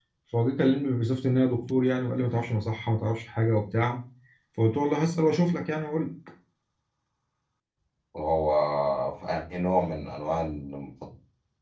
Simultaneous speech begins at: none

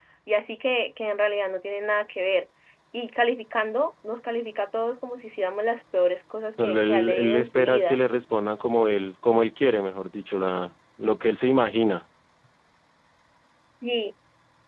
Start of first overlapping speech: 6.6 s

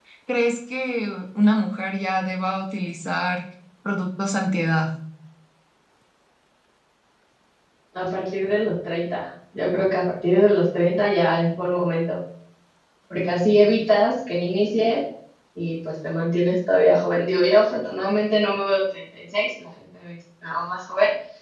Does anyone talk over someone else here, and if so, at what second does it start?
none

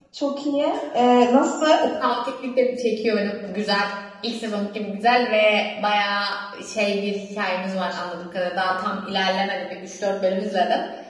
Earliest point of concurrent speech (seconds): none

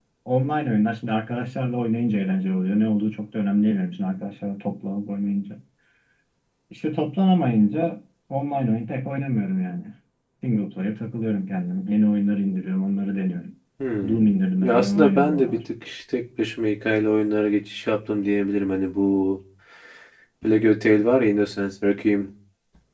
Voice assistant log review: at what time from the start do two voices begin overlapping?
14.1 s

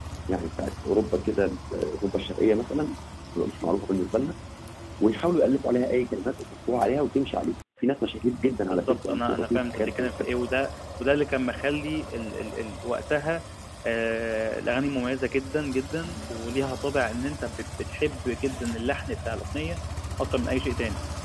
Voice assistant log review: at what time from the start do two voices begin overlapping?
8.7 s

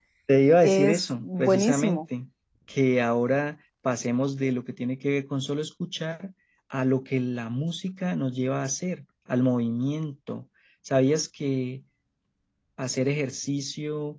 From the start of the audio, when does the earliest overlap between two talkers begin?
0.6 s

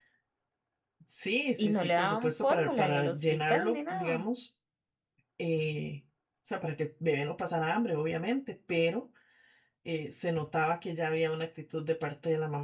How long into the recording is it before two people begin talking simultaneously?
1.6 s

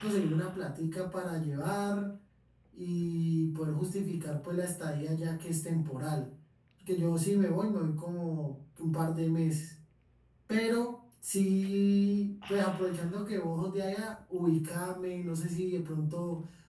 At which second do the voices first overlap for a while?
none

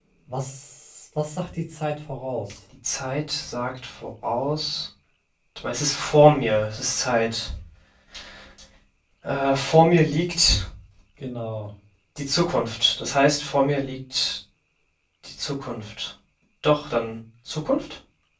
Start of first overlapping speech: none

